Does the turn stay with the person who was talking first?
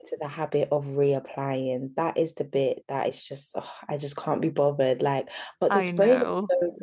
Yes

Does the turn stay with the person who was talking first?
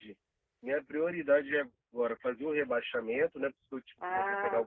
No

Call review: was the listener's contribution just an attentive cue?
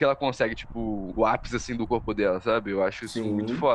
Yes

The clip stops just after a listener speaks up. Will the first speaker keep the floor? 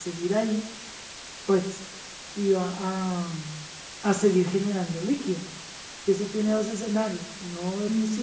Yes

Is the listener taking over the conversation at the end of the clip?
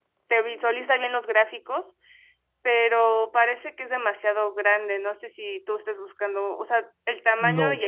Yes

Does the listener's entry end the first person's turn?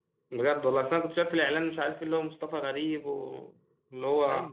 No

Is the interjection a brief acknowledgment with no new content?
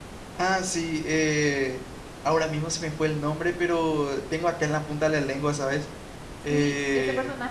No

